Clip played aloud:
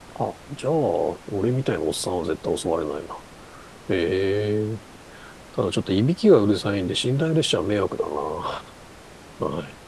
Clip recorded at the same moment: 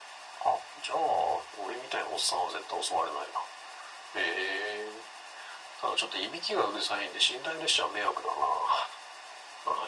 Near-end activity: none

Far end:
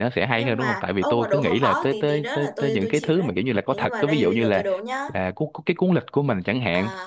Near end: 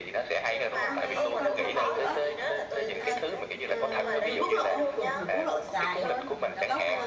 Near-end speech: present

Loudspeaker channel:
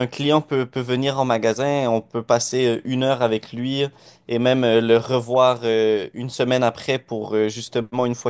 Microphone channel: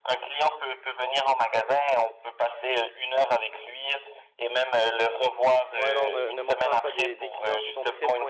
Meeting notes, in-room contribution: present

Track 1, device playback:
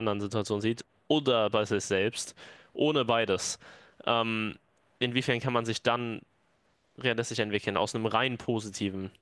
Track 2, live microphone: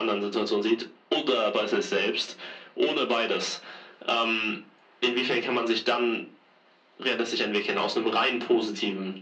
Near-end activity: none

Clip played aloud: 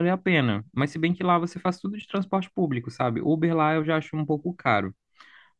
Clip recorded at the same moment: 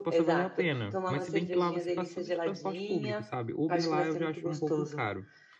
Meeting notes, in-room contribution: present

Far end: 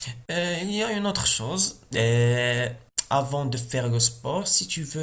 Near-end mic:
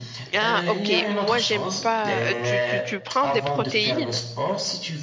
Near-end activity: present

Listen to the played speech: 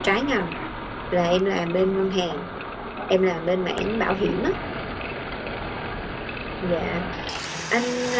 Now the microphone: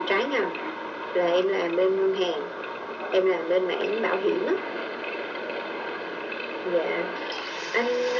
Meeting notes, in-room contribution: none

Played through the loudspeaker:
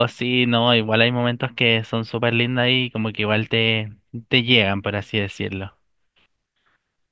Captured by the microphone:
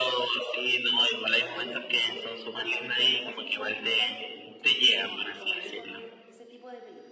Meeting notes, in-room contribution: present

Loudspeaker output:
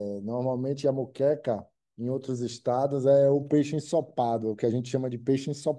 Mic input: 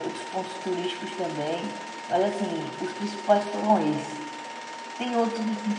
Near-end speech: present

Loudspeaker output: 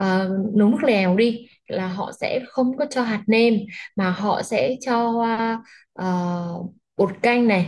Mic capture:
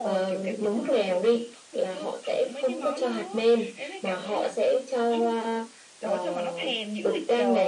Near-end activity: present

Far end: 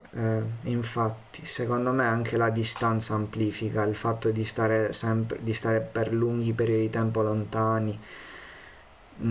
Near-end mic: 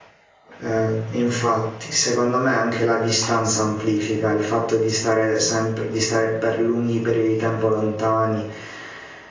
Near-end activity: none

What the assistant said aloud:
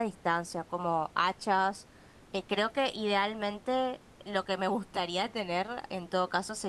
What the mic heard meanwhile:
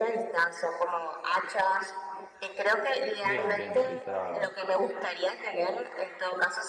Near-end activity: present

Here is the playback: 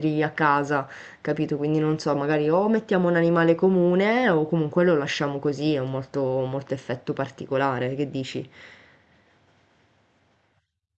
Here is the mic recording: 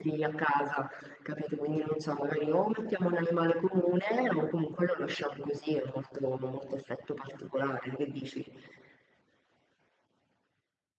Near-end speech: none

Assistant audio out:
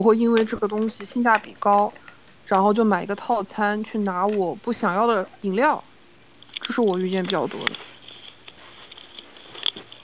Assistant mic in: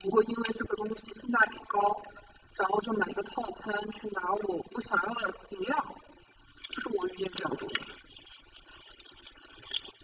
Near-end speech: none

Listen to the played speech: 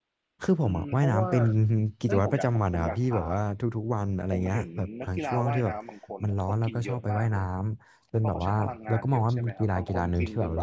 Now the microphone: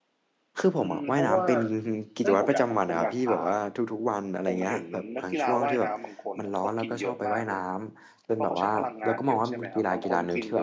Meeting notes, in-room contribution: none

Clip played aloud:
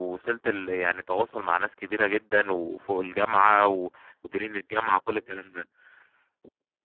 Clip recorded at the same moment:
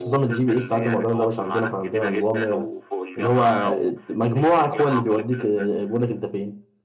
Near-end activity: present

